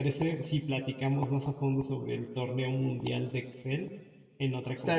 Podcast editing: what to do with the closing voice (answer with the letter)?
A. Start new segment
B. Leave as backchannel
A